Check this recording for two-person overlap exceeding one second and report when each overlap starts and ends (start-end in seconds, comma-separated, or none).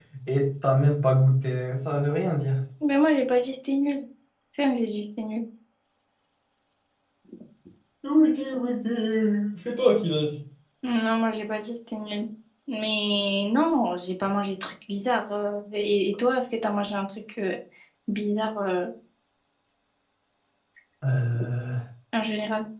none